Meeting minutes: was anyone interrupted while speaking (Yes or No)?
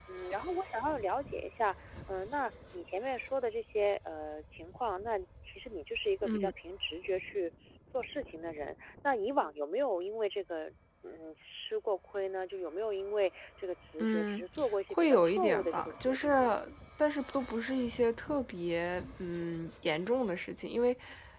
Yes